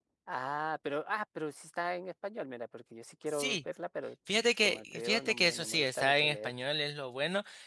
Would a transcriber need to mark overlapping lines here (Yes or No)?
Yes